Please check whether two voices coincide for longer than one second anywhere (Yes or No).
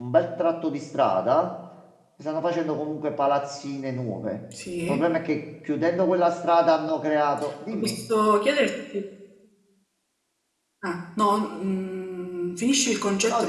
No